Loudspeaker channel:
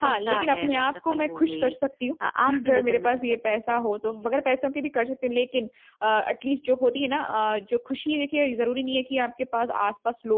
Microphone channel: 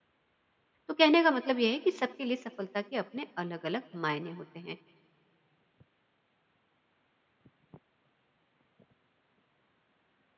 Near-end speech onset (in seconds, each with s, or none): 0.9 s